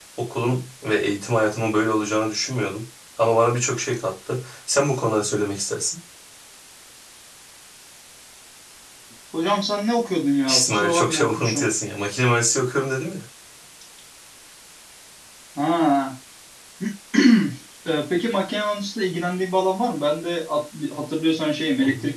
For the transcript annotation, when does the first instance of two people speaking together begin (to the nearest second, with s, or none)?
10 s